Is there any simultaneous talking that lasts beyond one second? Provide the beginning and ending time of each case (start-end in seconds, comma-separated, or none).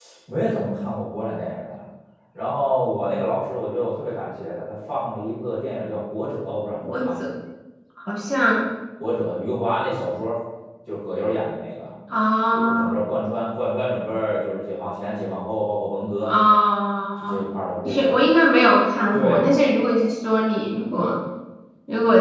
none